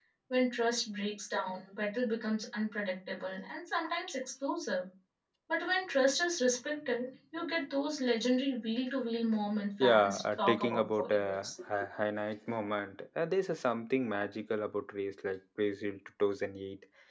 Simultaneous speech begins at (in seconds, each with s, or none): 9.8 s